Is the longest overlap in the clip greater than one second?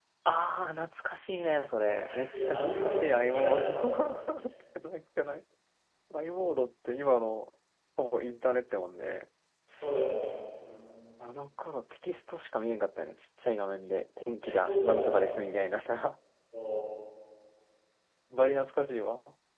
Yes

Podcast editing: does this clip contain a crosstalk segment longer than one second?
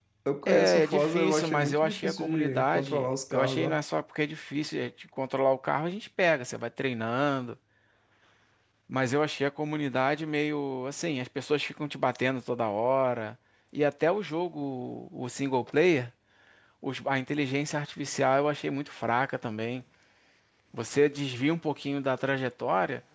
Yes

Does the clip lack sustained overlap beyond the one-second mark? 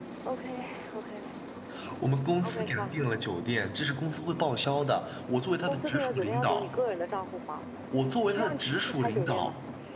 No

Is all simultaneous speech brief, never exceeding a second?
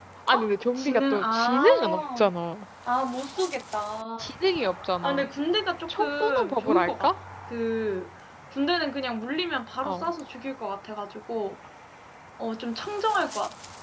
No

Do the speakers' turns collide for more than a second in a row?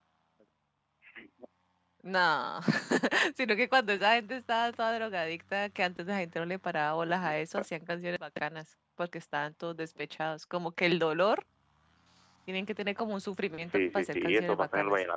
Yes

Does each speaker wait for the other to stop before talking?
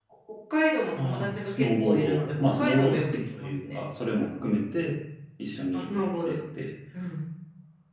No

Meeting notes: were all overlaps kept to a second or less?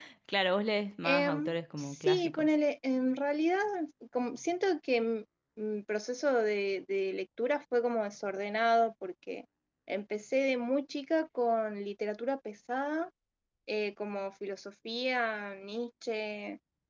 No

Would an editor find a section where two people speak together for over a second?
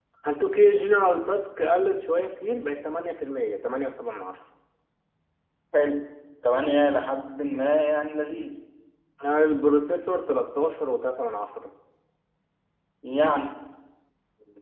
No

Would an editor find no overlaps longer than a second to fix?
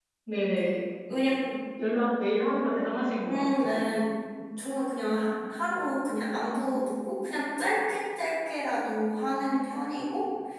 Yes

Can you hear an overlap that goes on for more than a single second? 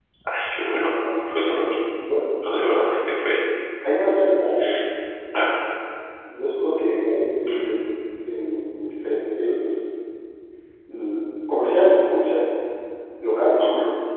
No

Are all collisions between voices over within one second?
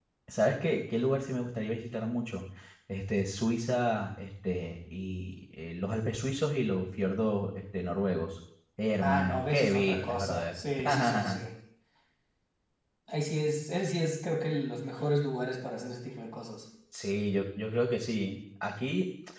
No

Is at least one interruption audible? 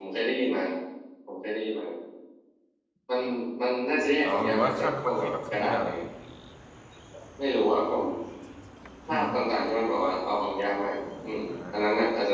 Yes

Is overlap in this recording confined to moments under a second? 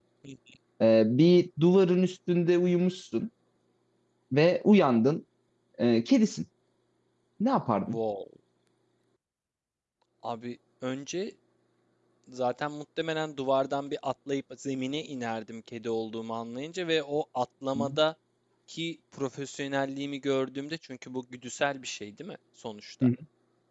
Yes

